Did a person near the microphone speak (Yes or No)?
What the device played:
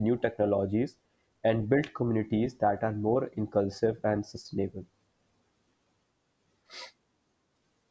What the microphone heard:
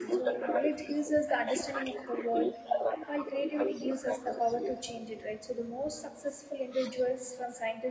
Yes